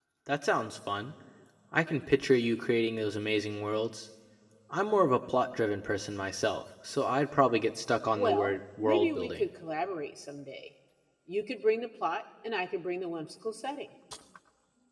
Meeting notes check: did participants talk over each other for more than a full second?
Yes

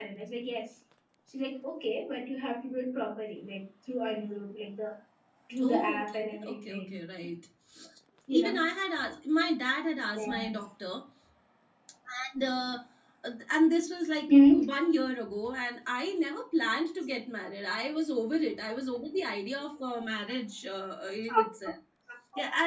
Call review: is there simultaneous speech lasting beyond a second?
Yes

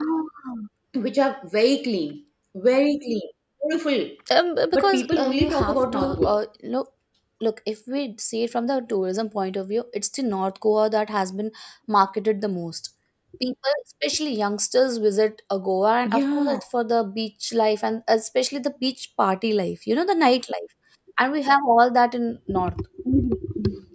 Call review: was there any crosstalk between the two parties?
Yes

